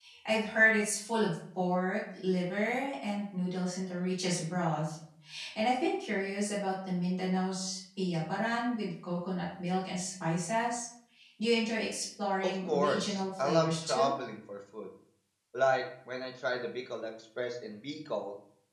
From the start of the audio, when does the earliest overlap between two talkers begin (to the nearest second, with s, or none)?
12 s